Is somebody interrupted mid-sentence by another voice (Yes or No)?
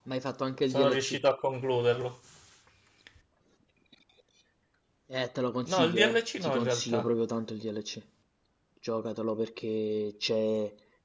Yes